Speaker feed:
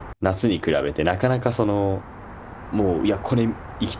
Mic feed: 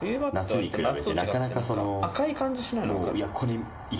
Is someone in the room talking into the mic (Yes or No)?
Yes